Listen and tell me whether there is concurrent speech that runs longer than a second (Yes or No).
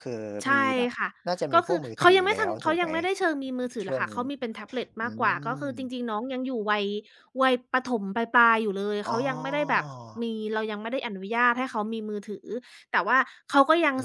Yes